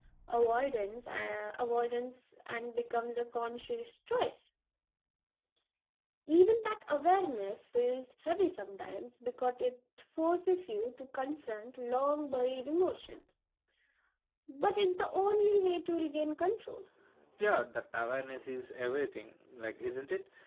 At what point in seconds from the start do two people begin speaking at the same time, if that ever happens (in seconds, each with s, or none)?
none